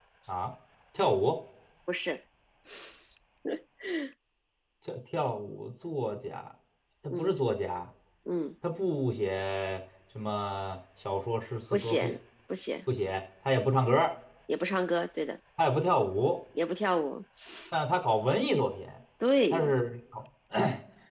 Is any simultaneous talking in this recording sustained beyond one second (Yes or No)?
No